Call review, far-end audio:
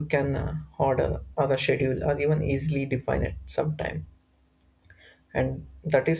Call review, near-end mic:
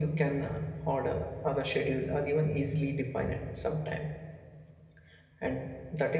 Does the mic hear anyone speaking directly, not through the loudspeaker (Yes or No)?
No